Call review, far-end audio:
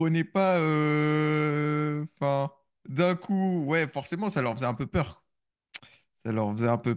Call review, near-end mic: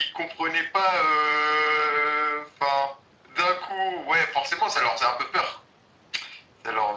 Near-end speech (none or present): none